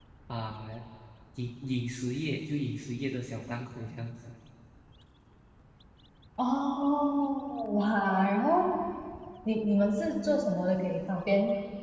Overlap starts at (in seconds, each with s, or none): none